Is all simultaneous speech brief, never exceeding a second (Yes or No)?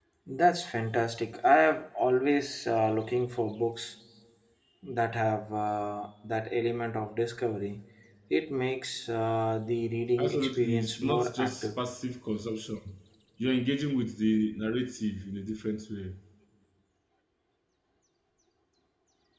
No